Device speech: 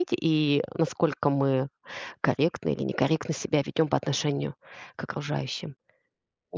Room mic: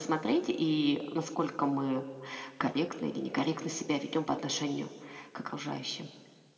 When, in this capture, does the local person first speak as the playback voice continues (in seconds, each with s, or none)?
none